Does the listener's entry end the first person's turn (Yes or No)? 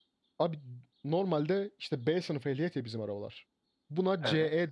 No